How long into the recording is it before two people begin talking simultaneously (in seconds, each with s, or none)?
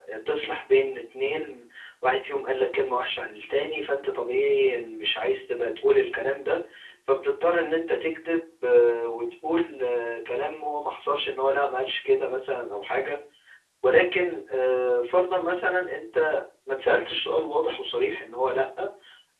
none